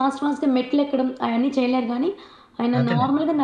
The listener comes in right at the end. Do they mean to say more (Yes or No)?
No